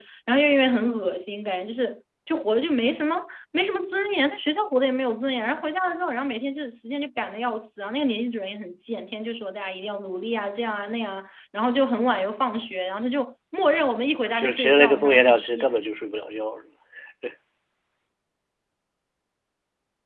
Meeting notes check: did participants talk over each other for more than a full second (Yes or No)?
Yes